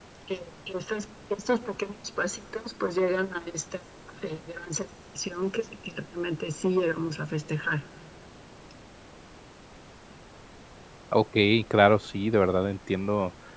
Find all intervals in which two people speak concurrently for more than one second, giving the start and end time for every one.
none

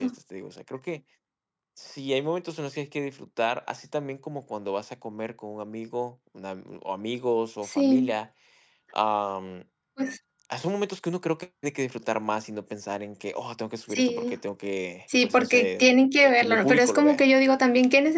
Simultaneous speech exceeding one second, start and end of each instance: 15.2-17.2

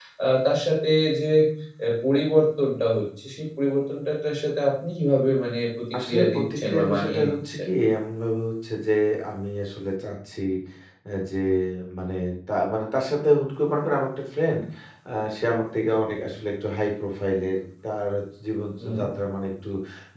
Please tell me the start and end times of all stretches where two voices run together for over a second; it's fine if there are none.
6.1-7.6

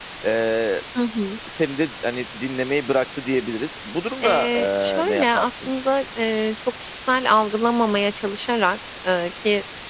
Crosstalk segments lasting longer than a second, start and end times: 4.2-5.7

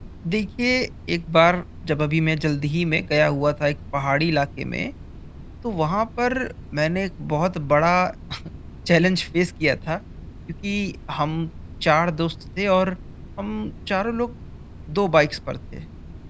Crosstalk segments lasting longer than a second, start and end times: none

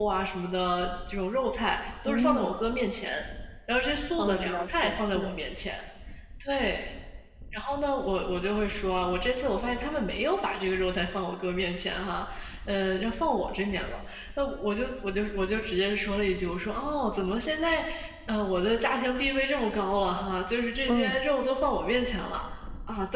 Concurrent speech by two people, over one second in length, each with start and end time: 4.2-5.4

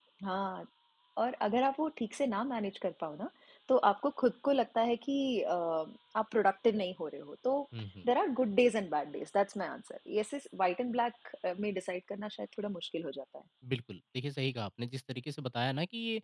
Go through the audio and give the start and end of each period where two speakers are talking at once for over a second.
none

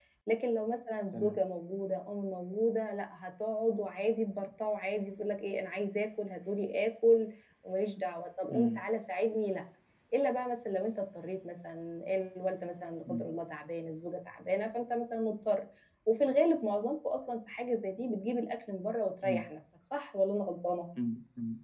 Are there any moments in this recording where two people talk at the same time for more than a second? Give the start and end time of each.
none

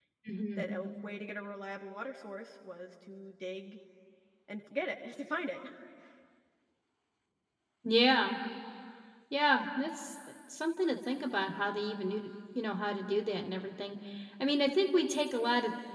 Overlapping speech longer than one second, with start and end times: none

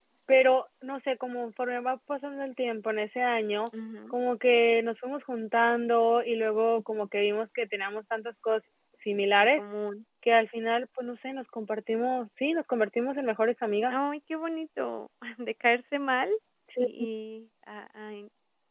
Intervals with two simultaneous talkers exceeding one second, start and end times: none

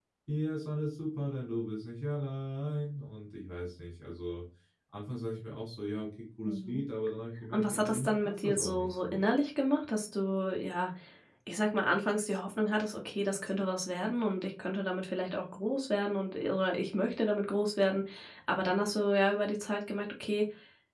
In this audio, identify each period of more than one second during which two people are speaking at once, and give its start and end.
7.5-9.2

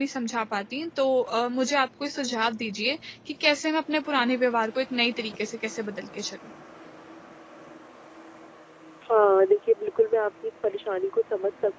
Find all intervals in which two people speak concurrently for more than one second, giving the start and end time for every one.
none

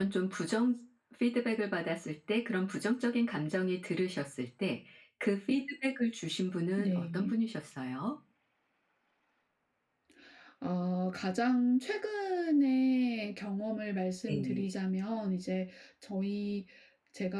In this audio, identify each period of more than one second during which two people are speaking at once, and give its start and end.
none

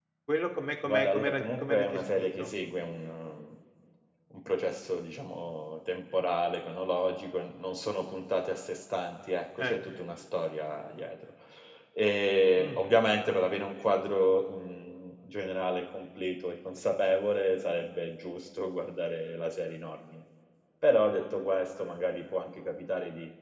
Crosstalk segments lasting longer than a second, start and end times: 0.8-2.4

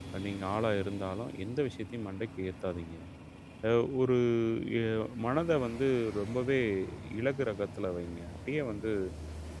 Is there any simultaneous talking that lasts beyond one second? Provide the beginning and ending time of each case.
none

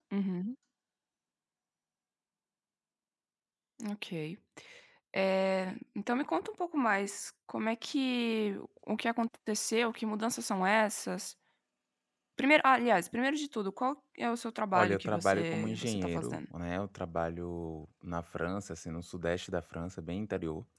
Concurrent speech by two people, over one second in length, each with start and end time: 14.7-16.4

